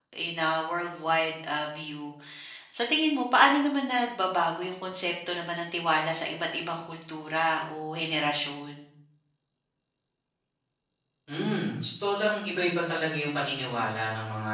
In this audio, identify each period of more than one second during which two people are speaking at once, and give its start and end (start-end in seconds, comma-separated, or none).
none